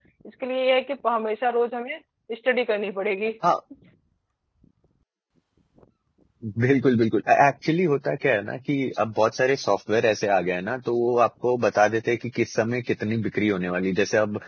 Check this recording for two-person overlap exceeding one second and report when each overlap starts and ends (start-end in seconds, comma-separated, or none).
none